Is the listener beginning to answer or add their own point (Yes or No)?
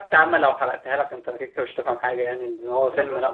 No